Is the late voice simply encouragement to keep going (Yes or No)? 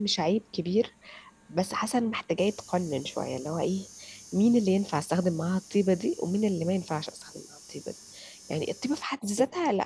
Yes